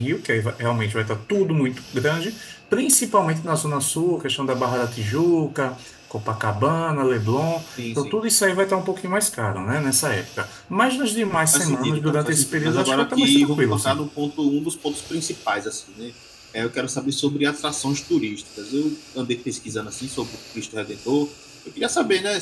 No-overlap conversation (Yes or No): No